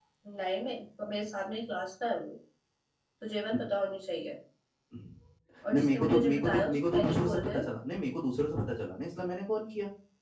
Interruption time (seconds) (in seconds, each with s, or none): 5.7 s